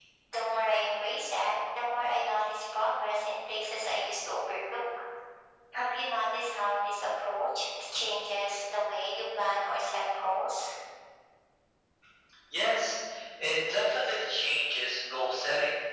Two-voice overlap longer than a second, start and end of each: none

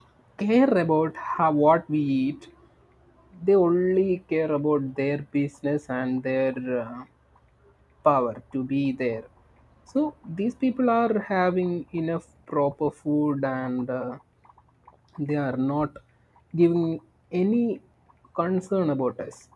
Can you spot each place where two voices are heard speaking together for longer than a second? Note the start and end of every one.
none

